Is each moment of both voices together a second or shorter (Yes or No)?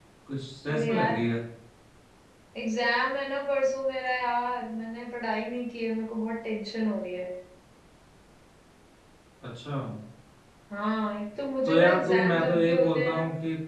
No